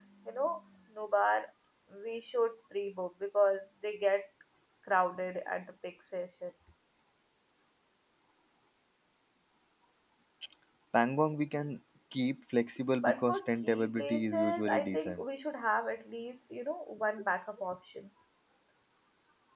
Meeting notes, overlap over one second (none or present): present